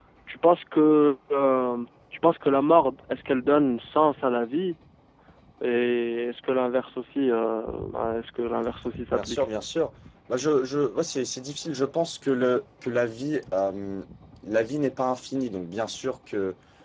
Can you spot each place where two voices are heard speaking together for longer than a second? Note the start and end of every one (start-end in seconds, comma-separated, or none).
none